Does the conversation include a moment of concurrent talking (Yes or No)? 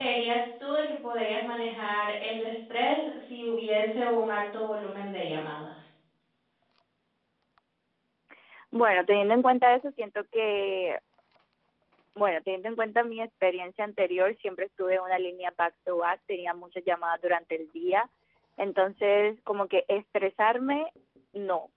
No